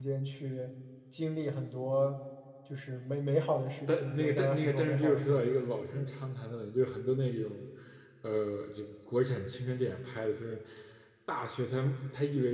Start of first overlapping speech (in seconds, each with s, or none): 3.9 s